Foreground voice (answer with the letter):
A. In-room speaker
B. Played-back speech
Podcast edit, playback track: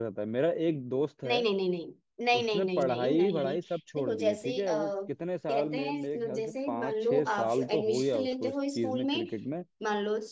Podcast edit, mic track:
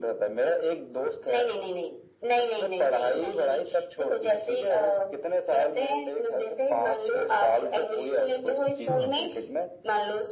B